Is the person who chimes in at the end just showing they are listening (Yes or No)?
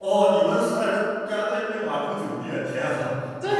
No